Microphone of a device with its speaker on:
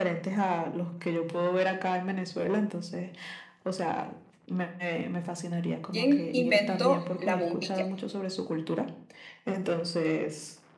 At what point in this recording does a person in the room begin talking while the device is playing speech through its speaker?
6 s

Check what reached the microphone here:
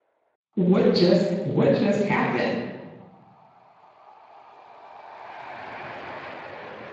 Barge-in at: 1 s

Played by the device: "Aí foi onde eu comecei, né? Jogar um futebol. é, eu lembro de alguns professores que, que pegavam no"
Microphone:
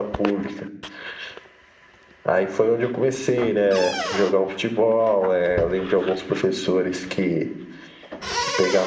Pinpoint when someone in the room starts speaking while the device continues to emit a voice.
none

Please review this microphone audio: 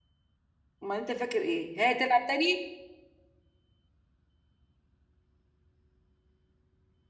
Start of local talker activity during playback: 1 s

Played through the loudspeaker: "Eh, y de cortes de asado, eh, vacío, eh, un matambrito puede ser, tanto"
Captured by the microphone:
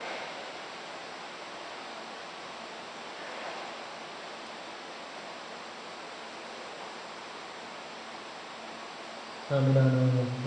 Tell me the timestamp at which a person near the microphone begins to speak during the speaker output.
9 s

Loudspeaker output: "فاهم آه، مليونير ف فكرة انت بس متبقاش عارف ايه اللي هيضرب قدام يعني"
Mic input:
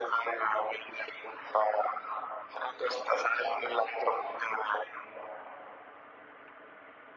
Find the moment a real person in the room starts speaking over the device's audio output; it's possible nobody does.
none

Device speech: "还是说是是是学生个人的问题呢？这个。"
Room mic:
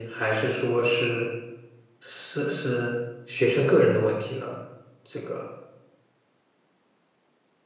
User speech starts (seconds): none

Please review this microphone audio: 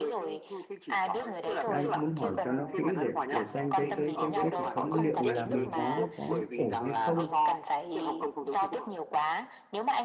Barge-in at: 2 s

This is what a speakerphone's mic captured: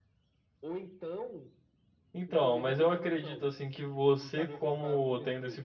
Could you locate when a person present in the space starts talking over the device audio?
2 s

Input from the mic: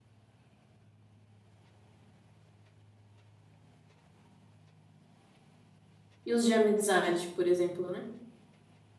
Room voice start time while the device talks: 6 s

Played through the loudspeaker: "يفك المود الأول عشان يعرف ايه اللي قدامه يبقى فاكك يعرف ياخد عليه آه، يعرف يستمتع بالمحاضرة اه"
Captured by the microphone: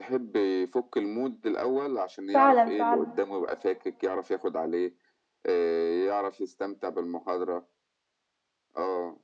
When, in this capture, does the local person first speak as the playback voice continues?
2 s

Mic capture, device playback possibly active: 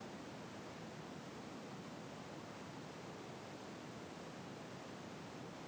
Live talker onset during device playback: none

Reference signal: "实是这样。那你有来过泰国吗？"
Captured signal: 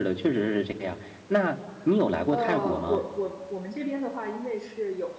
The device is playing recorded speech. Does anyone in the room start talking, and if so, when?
2 s

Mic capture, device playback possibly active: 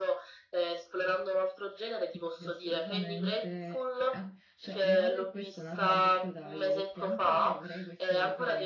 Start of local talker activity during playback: 2 s

